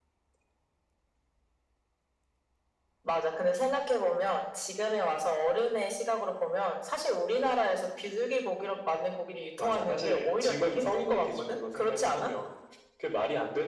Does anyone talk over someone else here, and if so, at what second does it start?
9.6 s

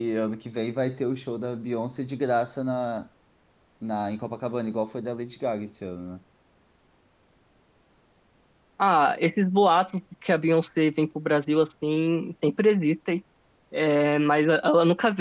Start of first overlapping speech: none

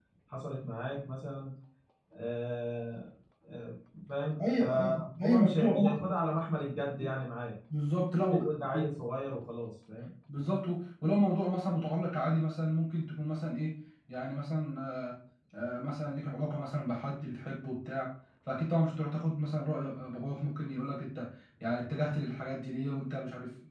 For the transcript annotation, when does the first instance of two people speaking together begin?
4.4 s

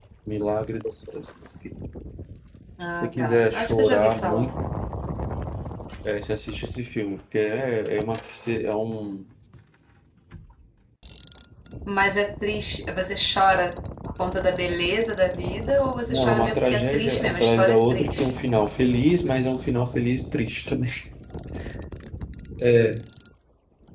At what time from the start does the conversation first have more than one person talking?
2.9 s

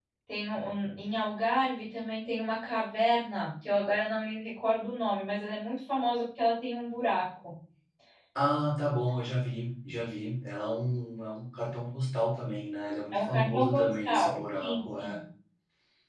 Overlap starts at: 13.1 s

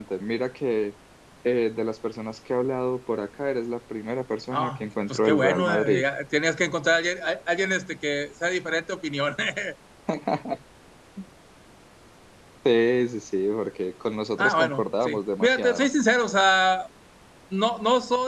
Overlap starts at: 4.5 s

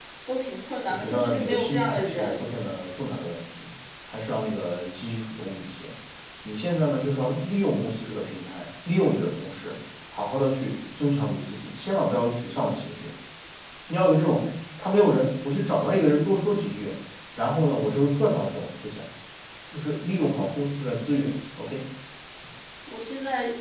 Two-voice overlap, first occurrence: 0.9 s

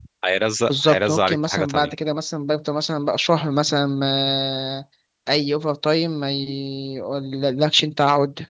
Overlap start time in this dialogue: 0.7 s

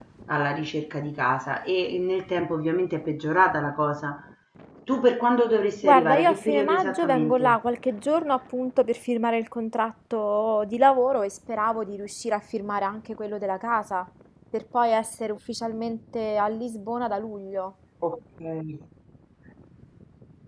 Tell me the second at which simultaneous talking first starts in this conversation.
5.8 s

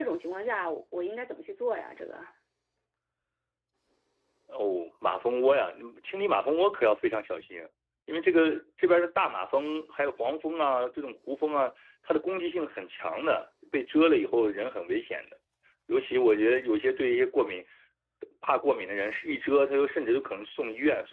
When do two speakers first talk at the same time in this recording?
none

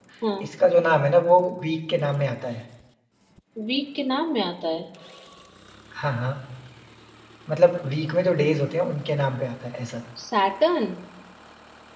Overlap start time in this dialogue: none

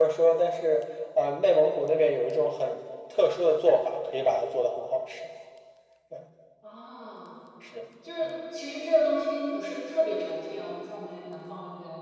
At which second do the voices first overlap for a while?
none

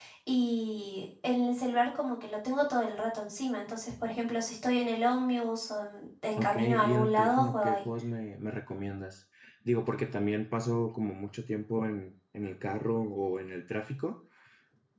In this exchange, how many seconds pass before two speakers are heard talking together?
6.4 s

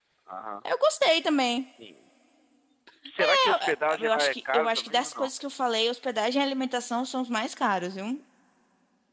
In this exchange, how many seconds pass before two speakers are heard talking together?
3.2 s

